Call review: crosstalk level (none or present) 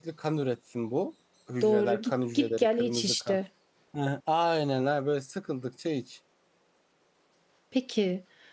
present